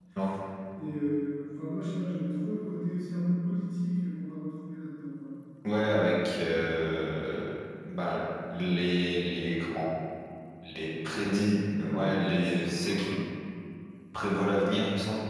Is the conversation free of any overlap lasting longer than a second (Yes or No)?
No